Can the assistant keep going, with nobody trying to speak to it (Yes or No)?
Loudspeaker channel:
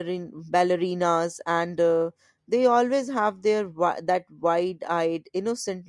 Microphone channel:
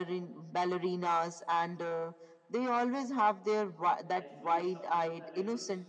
No